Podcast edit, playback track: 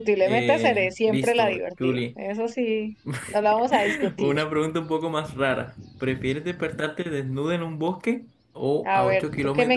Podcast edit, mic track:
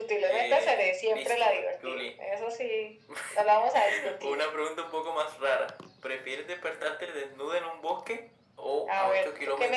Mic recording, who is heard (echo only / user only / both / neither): echo only